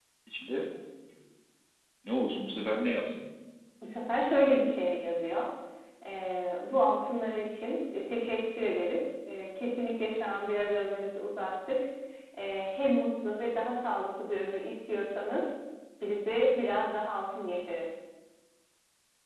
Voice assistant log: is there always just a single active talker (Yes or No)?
Yes